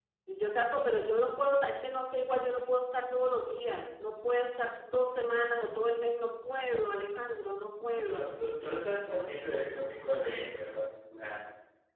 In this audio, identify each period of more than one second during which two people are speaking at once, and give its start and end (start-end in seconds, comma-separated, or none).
none